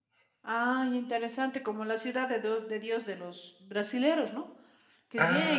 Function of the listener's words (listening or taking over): listening